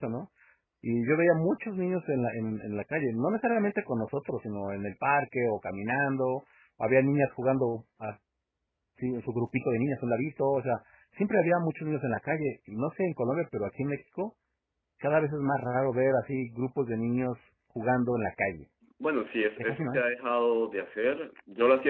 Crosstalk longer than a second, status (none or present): none